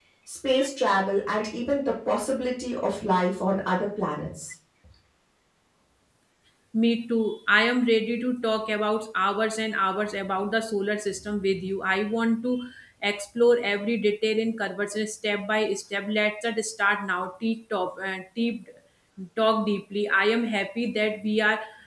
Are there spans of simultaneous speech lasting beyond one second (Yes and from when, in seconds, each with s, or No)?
No